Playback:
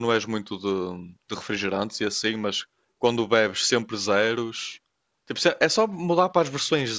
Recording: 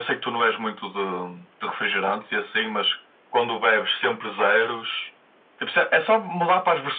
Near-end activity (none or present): none